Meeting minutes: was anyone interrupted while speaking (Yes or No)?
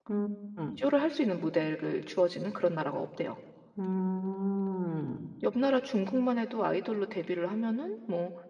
No